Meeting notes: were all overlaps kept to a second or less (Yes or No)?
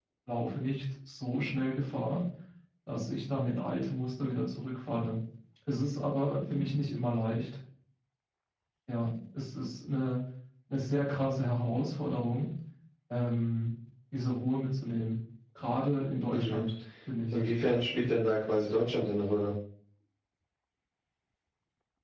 Yes